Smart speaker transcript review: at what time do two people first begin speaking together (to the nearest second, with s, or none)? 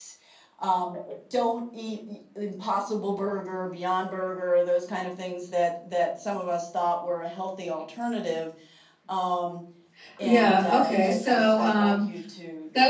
10 s